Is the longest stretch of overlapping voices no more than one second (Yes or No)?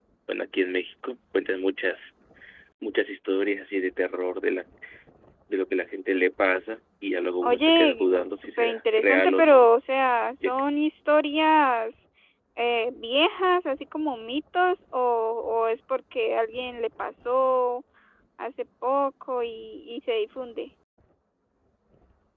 No